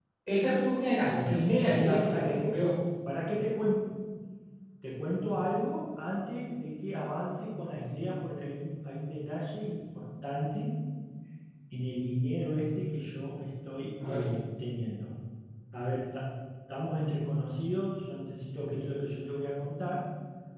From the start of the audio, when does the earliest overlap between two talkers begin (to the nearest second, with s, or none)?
1 s